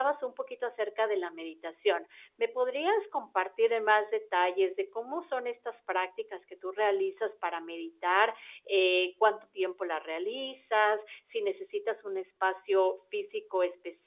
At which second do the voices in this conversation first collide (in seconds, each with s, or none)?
none